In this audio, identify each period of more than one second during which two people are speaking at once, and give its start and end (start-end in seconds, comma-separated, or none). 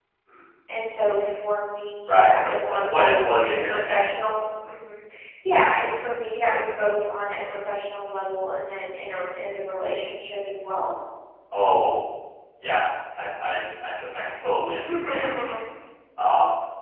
2.1-4.0